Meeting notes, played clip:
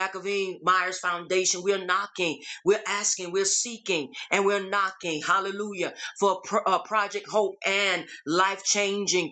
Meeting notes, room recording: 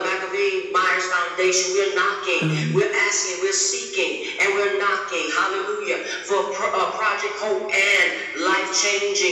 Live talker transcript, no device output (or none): Um,